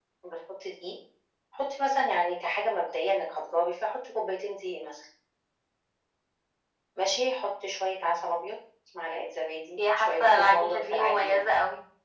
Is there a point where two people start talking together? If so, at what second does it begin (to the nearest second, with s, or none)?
10 s